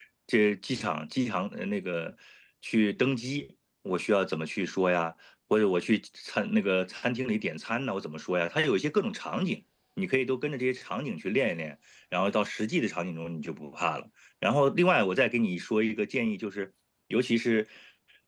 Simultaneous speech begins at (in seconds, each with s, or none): none